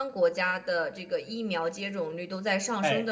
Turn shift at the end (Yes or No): No